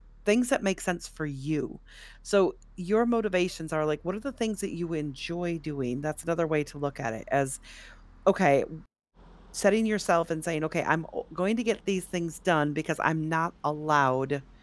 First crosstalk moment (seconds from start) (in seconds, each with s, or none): none